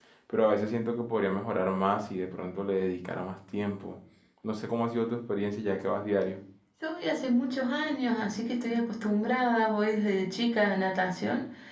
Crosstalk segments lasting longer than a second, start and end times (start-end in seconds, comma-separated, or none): none